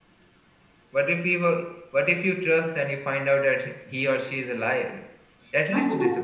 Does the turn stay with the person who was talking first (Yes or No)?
No